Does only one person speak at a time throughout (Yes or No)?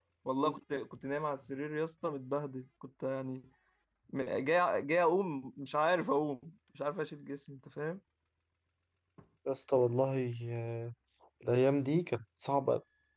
Yes